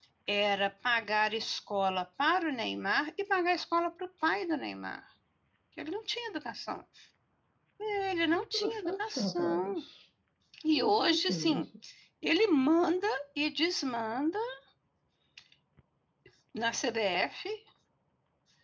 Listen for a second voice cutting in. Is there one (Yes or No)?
Yes